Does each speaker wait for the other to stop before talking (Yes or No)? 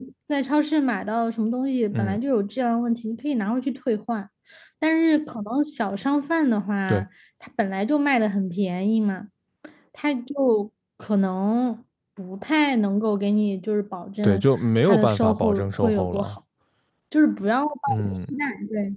No